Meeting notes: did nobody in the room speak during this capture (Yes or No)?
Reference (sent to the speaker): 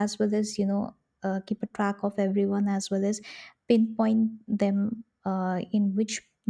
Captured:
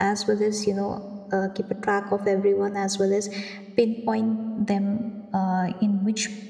Yes